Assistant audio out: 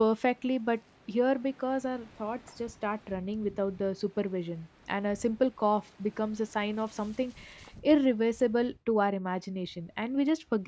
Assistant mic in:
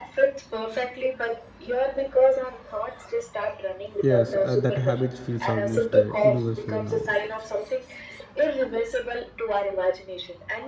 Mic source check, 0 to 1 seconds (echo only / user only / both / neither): echo only